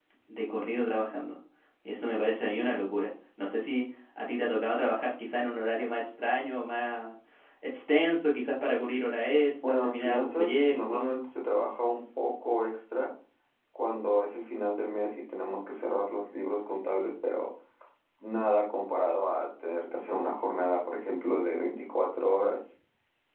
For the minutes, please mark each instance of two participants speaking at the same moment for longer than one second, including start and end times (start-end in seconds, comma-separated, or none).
9.6-11.2